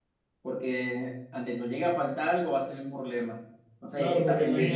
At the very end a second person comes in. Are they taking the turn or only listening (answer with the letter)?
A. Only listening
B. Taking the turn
B